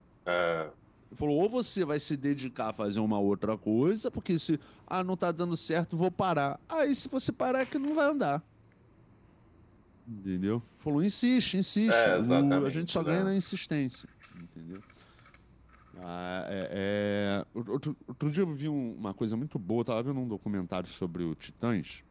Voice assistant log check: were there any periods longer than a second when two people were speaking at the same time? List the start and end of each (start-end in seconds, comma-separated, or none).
11.9-13.3